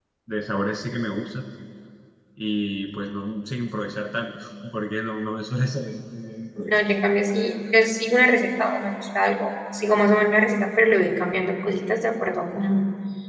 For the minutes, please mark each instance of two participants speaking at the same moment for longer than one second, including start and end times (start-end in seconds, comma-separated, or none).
none